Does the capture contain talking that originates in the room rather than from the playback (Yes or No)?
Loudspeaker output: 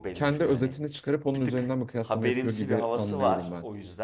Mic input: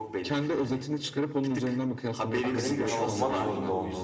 Yes